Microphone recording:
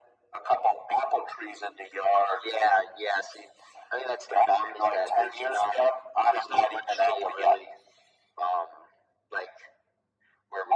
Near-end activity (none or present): none